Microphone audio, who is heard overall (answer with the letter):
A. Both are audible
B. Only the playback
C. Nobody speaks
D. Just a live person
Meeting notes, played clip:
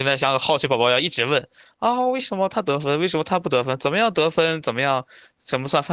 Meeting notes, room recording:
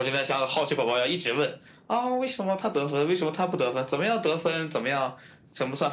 B